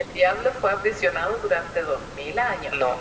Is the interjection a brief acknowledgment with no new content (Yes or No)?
Yes